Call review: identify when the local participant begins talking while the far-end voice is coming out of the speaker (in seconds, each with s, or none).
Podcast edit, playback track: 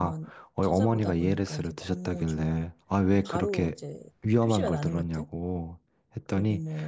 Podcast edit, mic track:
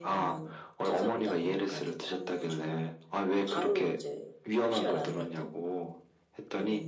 none